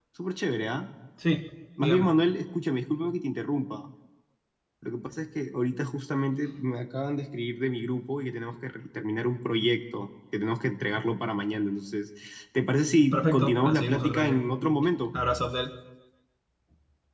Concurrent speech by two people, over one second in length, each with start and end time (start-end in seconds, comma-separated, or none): 13.1-14.4